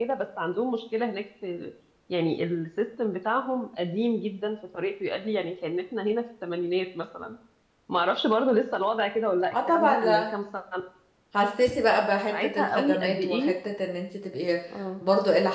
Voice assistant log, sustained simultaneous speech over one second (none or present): present